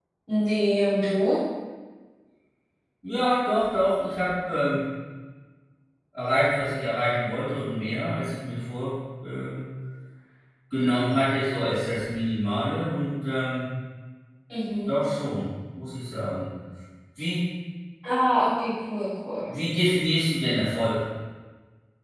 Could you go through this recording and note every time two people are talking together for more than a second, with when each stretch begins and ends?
none

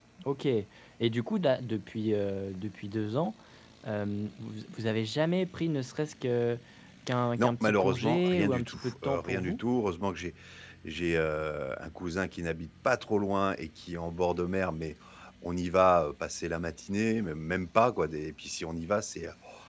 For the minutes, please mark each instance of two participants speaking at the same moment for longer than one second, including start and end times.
7.4-9.6

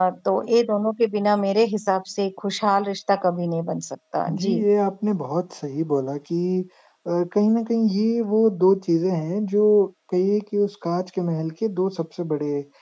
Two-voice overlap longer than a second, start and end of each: none

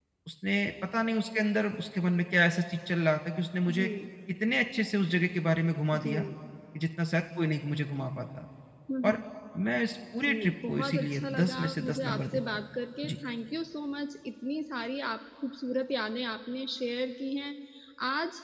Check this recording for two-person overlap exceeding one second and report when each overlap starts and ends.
10.2-12.4

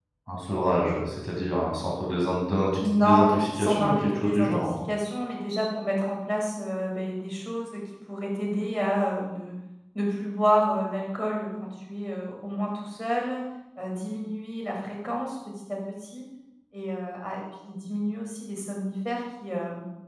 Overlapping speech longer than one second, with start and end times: 2.8-4.7

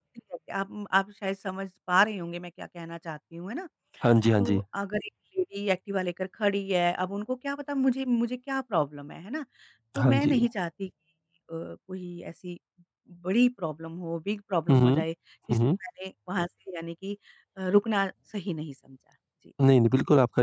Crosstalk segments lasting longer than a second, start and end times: none

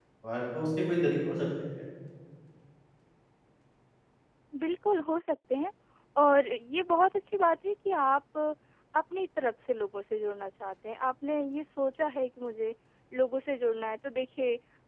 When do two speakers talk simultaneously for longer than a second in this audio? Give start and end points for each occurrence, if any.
none

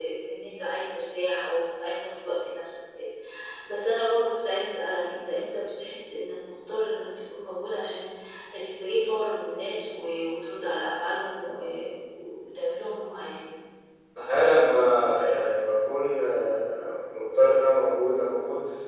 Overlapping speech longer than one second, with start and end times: none

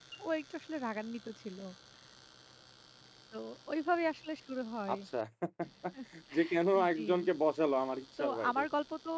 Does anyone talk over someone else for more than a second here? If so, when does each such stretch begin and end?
none

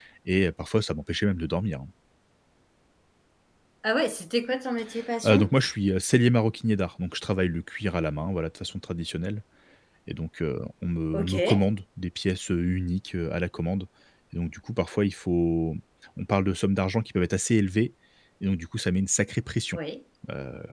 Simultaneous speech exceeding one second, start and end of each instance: none

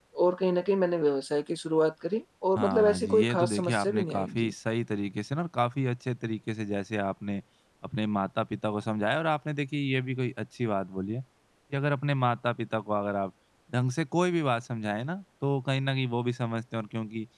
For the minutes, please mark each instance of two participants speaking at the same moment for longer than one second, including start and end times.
2.6-4.5

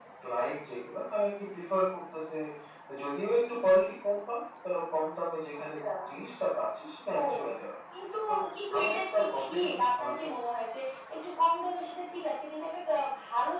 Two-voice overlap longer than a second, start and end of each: 8.8-10.1

